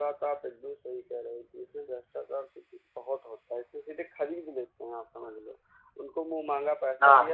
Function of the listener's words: listening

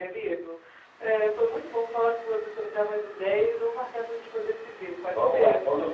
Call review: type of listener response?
taking over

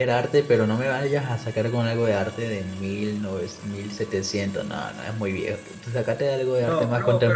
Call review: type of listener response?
taking over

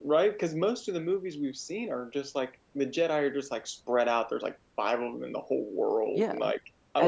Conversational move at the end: taking over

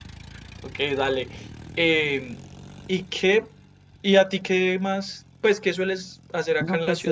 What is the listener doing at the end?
taking over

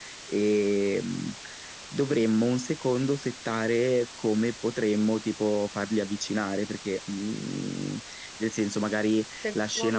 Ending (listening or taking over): listening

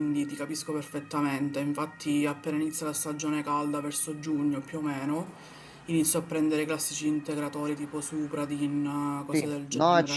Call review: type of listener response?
taking over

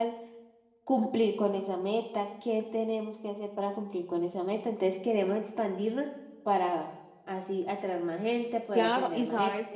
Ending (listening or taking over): taking over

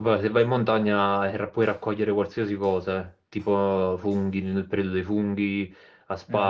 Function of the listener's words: listening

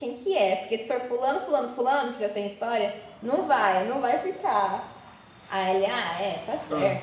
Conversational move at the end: listening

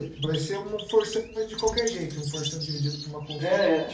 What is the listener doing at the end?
taking over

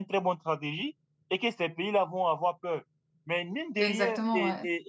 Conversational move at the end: listening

